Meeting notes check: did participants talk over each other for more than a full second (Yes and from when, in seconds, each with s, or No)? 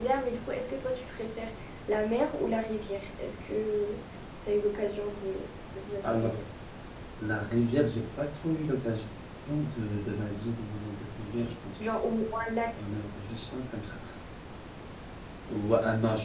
No